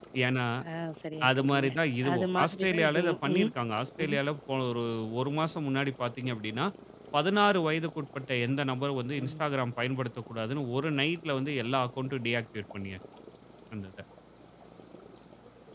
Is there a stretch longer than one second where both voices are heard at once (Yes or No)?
Yes